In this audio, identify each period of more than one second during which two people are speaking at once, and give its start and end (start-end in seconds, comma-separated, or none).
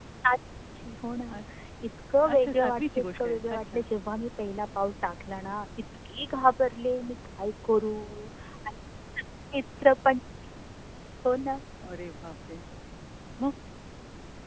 2.3-3.9